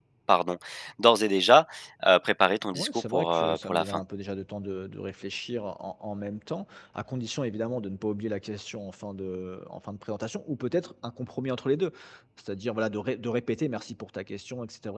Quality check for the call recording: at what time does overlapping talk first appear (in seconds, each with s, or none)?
2.7 s